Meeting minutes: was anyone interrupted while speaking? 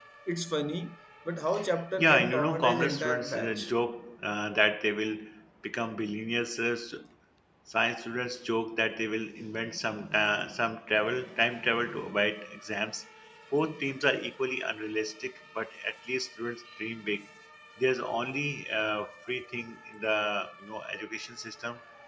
Yes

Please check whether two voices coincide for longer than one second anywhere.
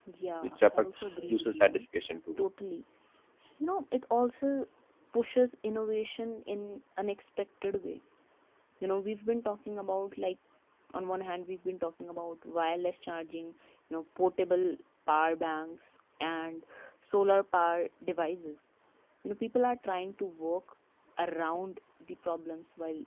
Yes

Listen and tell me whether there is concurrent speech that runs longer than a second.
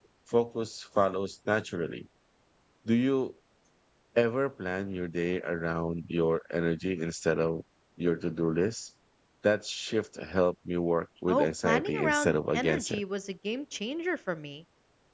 Yes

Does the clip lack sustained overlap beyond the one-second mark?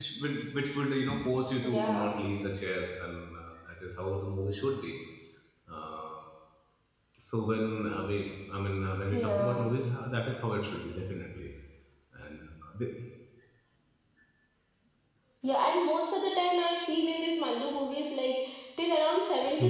Yes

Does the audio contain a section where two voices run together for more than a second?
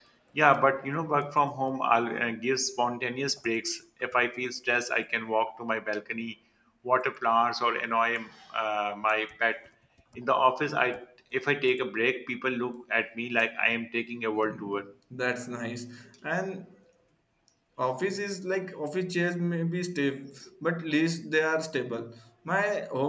No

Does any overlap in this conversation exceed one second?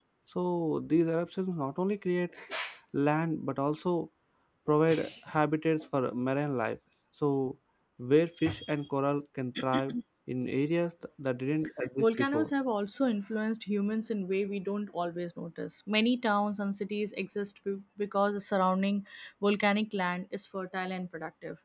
No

